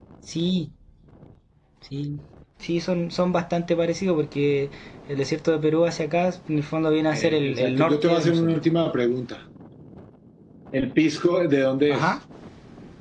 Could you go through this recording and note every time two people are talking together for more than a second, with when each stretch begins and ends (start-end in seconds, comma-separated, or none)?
7.1-8.6